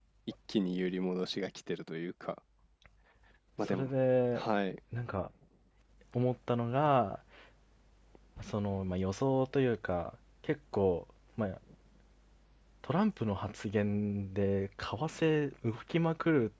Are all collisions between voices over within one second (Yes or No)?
Yes